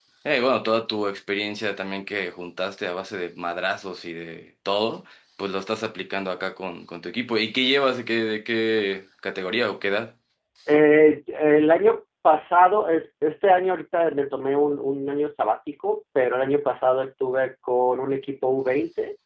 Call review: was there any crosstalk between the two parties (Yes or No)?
No